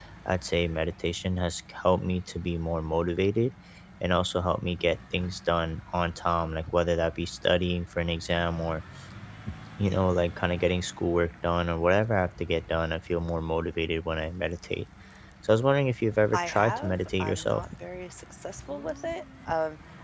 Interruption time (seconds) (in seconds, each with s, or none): 16.3 s